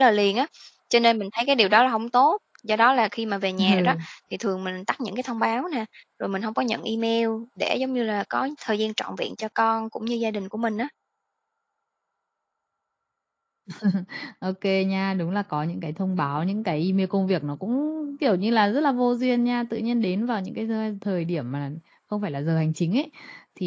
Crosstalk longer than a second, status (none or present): none